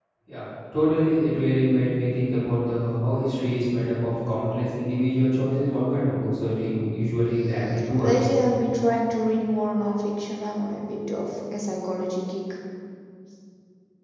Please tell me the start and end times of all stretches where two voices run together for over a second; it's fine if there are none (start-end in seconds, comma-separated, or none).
none